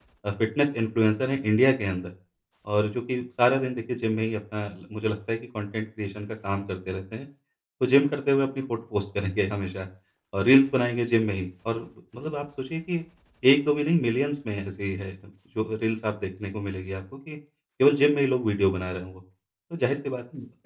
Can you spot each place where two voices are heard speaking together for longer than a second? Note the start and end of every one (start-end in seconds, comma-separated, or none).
none